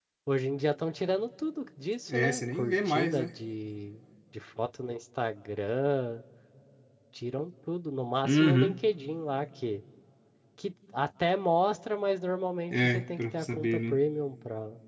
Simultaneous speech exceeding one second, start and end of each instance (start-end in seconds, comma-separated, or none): 2.1-3.3, 12.7-14.0